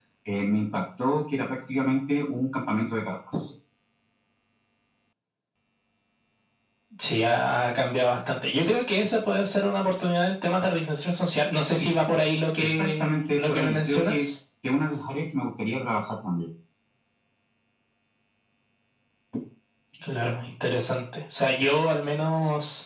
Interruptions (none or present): present